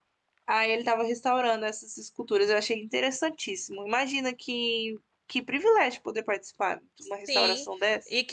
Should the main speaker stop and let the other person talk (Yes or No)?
Yes